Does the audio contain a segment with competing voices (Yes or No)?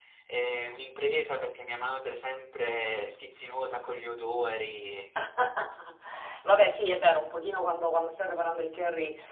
No